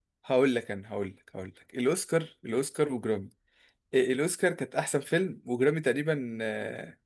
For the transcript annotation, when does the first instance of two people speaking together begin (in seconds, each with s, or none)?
none